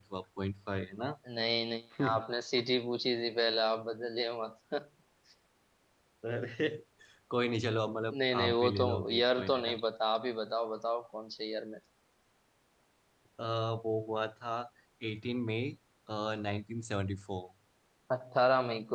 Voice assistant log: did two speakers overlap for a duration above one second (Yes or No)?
Yes